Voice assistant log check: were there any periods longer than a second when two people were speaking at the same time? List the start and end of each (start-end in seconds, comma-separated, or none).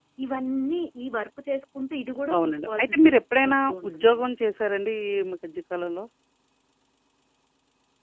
2.4-4.3